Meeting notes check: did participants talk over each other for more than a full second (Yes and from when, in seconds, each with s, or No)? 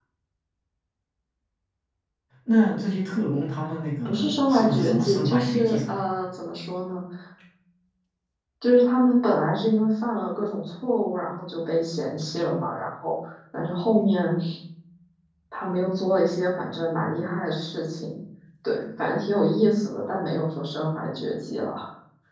Yes, from 4.0 s